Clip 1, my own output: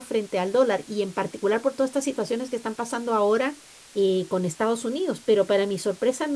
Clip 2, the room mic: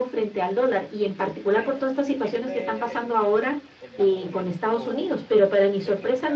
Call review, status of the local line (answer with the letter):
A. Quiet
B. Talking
B